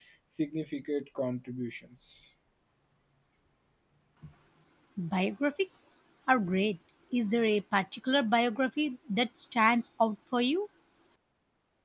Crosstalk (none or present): none